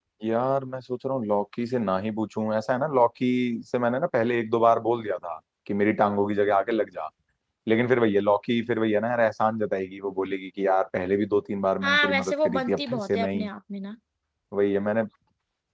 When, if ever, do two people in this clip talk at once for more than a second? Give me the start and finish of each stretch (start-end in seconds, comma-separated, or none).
11.8-13.5